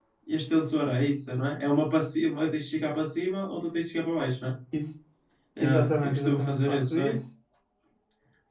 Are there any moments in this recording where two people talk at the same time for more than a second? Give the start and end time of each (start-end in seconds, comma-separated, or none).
5.6-7.2